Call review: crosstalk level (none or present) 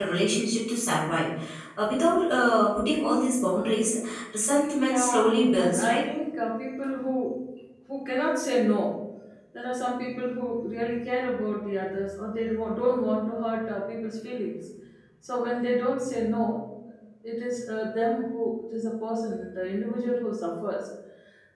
present